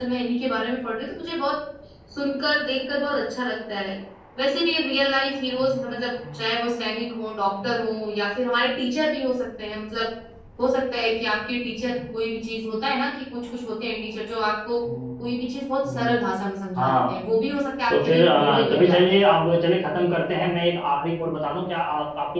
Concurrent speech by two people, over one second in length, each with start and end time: 17.9-19.2

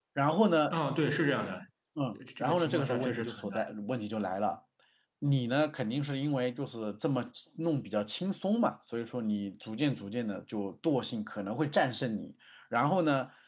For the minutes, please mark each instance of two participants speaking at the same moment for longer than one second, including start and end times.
2.1-3.7

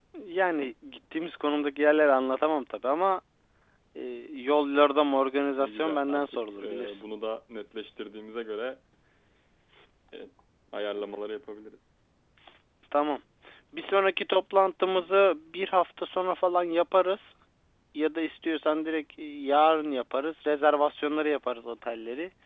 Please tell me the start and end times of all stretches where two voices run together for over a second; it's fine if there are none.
5.6-7.0

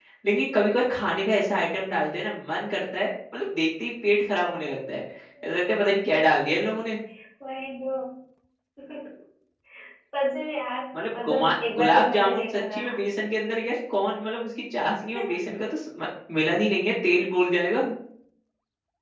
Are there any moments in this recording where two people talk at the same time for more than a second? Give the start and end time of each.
11.2-13.0

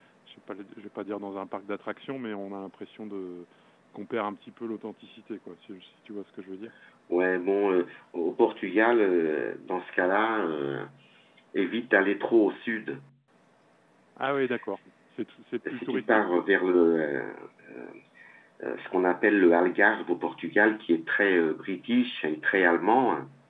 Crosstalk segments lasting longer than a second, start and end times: none

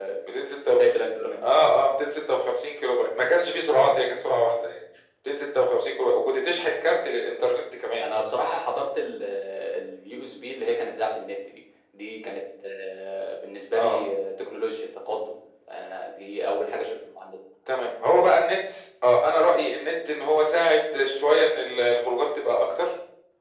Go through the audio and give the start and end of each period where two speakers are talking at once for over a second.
none

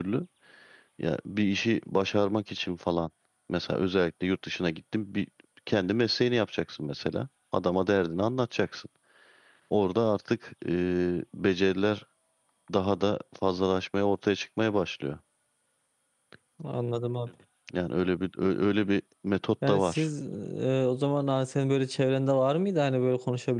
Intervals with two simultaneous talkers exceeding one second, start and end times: none

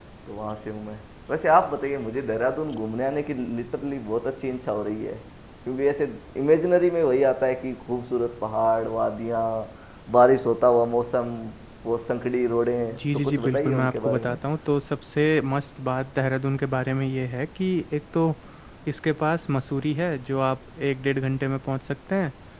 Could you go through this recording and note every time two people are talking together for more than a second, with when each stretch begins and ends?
13.0-14.4

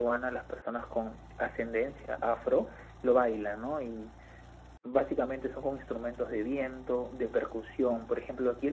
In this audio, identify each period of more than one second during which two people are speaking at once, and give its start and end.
none

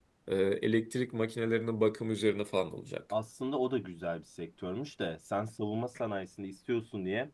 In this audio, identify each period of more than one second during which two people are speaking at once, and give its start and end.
none

